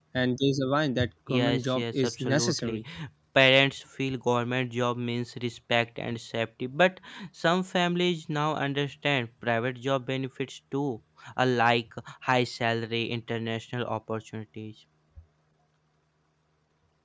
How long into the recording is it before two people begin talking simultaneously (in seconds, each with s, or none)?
1.3 s